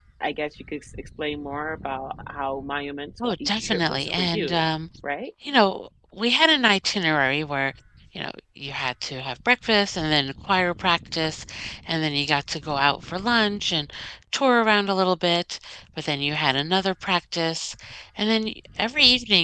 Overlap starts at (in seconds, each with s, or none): 3.2 s